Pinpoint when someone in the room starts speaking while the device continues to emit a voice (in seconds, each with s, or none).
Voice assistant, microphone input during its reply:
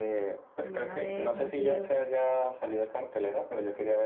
0.6 s